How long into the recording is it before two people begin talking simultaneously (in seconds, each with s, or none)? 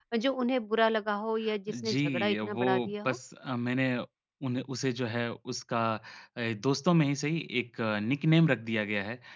1.7 s